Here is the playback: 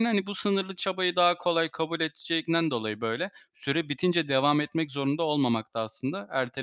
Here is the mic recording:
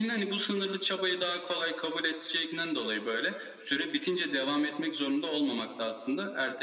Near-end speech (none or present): none